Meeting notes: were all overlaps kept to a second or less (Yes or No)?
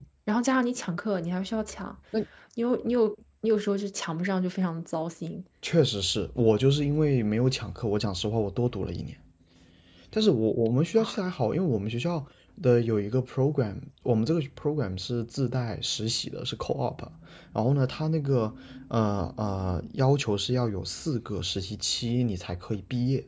Yes